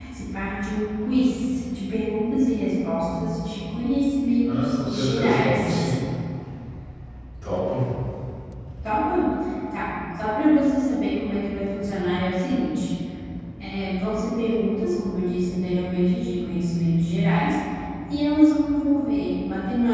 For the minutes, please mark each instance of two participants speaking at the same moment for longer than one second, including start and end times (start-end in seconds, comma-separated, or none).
4.4-5.9